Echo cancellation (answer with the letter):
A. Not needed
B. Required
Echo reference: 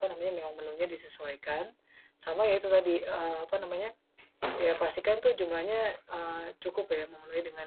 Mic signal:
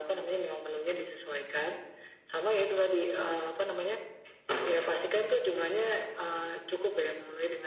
B